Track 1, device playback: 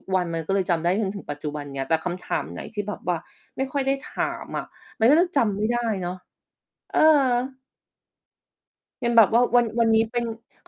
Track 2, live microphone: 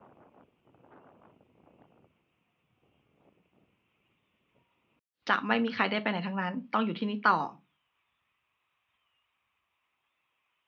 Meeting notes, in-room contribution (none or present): present